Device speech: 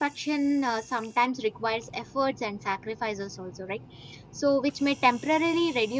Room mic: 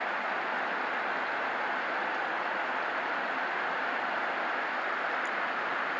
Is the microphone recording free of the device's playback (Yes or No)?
Yes